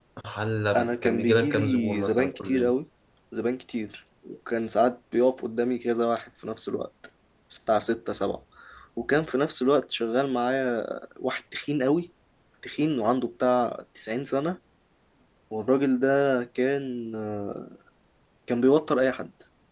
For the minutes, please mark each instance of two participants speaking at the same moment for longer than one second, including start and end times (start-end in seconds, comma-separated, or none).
0.7-2.7